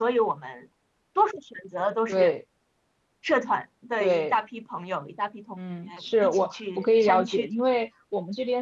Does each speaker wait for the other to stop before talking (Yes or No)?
No